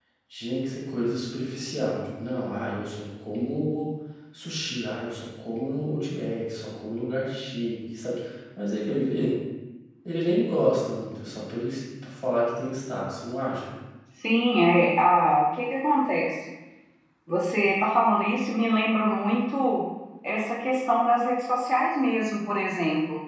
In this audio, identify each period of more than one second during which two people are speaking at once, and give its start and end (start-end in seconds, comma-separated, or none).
none